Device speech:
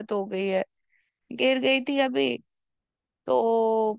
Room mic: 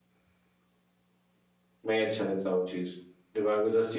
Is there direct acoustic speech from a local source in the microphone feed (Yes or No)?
Yes